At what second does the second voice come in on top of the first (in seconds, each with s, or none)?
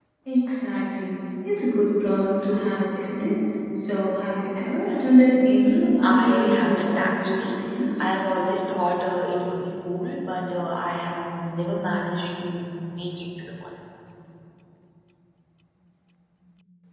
6.0 s